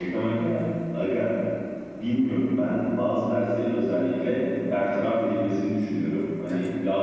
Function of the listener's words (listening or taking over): listening